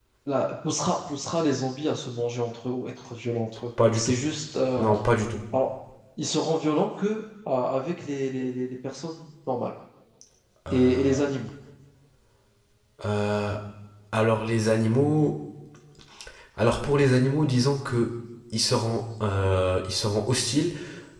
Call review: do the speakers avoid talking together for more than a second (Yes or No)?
Yes